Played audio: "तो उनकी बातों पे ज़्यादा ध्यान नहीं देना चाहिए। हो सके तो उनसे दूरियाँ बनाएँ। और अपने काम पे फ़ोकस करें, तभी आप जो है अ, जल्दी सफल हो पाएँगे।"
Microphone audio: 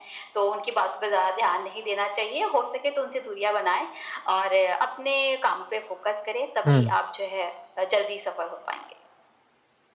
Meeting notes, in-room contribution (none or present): present